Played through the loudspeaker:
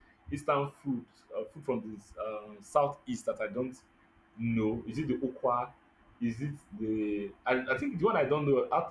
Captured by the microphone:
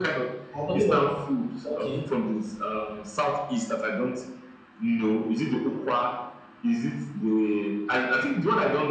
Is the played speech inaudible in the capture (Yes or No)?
No